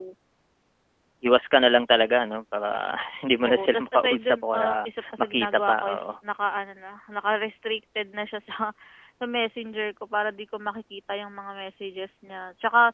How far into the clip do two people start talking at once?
3.4 s

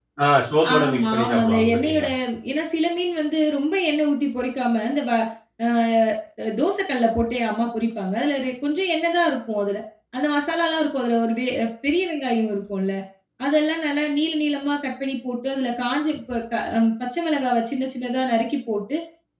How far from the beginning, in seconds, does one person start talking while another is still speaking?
0.7 s

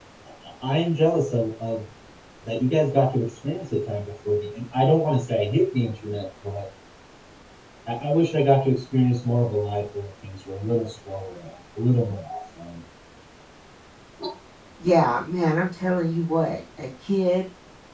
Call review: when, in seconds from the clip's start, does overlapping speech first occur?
none

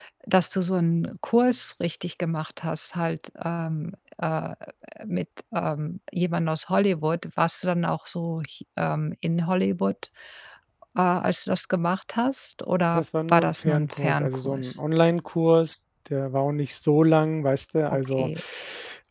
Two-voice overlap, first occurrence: 12.9 s

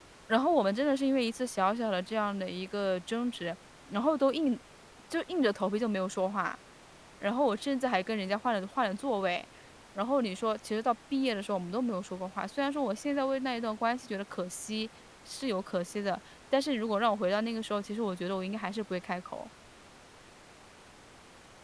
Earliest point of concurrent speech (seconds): none

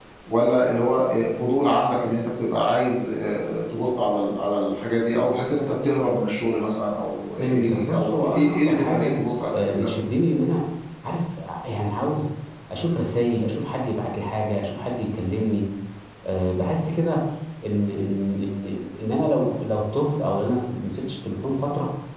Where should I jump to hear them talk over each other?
7.4 s

